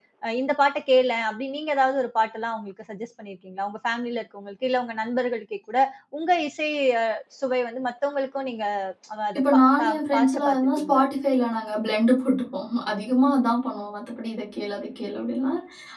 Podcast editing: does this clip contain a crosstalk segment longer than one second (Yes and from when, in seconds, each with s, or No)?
Yes, from 9.4 s